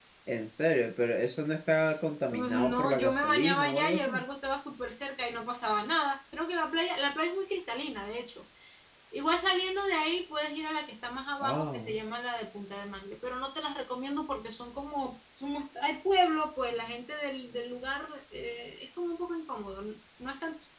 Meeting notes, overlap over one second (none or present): present